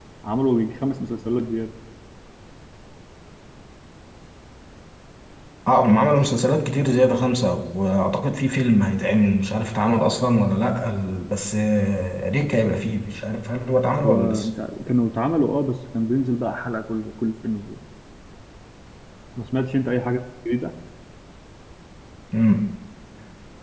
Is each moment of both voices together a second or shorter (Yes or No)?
Yes